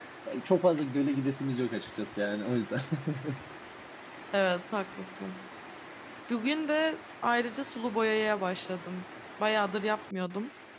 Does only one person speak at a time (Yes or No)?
Yes